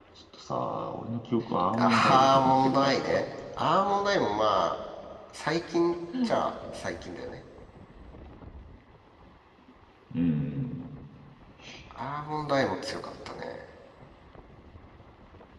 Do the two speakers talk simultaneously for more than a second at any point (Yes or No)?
Yes